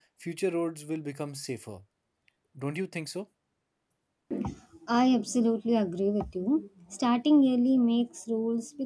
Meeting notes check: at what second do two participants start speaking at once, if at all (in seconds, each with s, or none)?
none